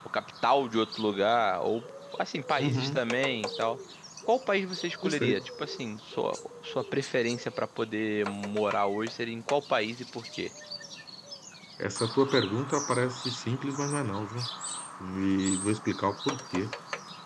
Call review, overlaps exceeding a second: none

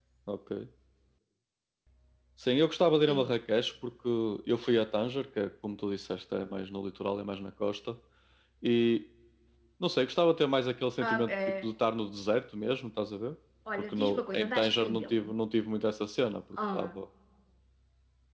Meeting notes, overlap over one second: present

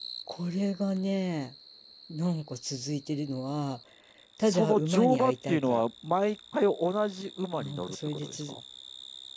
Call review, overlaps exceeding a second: present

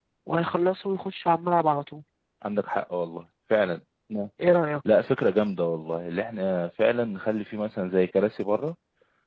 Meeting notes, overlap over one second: none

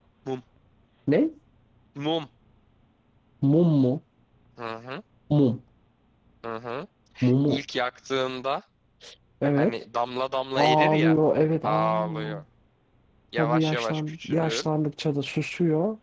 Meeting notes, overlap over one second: present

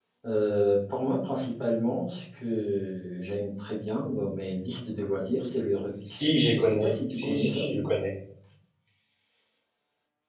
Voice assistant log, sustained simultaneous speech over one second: present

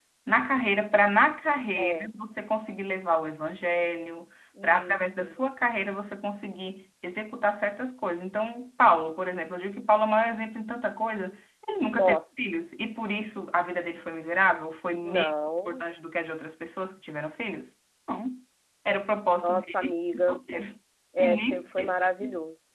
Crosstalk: present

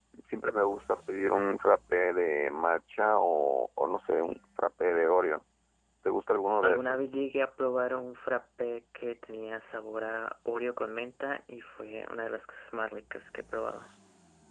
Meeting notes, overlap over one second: none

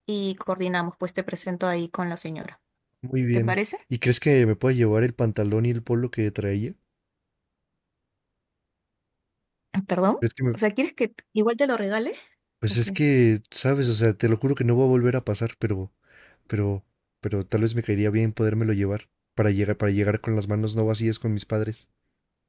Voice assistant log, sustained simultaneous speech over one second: none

